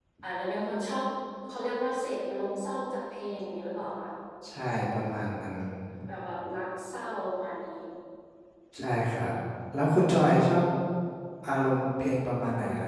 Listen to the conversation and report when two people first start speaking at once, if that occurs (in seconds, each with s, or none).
none